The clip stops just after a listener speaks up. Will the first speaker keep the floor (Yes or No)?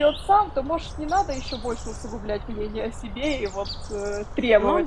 No